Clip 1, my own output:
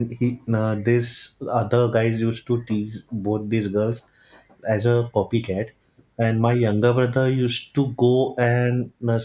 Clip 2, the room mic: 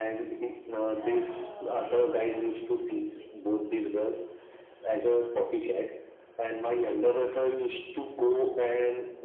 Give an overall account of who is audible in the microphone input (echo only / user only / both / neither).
both